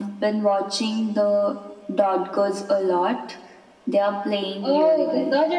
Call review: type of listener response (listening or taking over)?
taking over